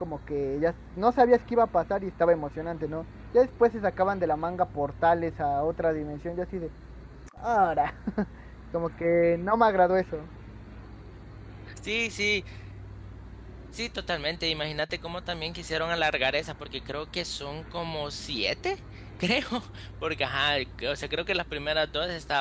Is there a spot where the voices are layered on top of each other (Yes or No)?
No